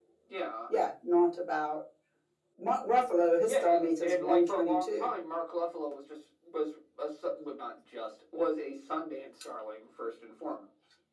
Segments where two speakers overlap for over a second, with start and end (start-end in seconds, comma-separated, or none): 3.4-5.1